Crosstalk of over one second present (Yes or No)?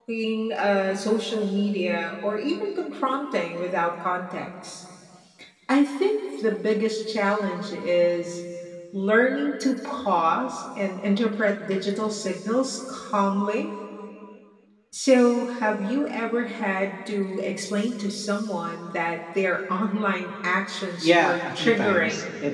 Yes